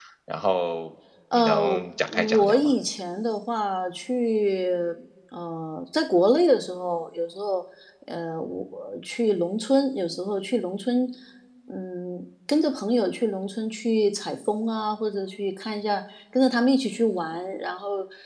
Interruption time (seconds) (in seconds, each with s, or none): 1.3 s